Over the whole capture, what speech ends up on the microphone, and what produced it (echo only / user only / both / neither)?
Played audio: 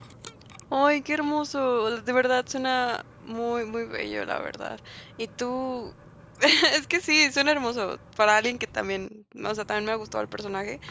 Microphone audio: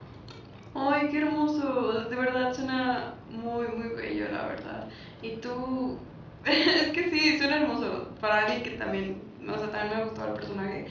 echo only